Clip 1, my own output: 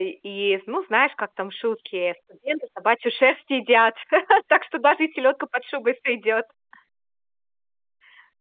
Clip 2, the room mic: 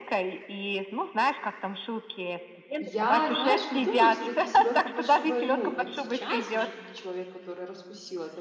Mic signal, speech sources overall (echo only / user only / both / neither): both